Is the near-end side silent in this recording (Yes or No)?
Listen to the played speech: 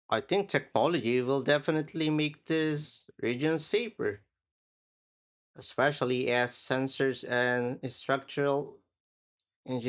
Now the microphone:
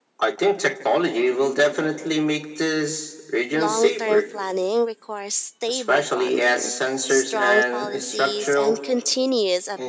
No